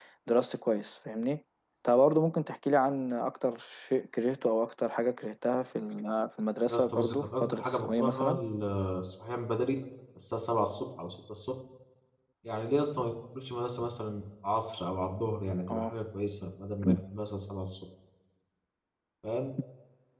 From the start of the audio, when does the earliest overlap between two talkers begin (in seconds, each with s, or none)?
6.7 s